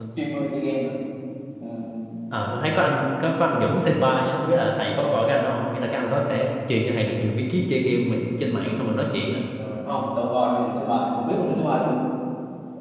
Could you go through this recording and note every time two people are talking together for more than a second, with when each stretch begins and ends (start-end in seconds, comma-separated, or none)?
none